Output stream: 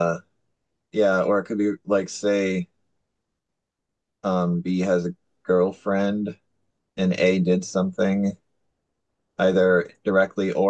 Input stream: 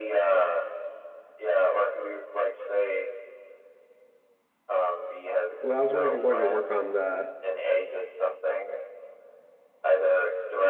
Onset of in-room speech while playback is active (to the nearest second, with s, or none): 6 s